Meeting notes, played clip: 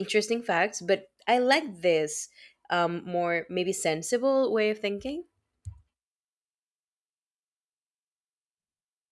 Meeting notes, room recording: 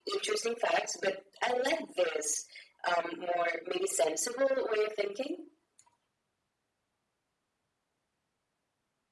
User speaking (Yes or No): No